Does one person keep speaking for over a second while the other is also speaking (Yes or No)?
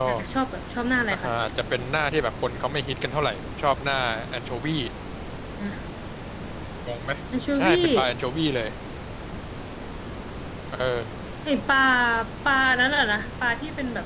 No